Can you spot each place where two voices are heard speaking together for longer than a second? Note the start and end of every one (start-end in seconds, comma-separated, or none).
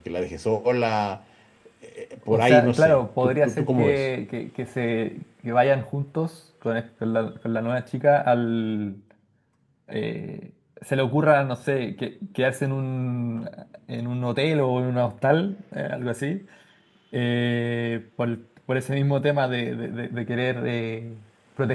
2.3-4.0